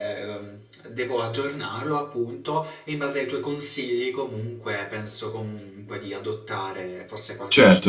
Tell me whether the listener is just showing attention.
No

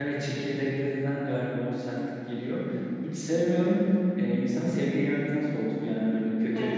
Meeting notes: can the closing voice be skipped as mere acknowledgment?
No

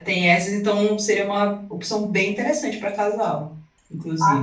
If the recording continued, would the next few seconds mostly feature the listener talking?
Yes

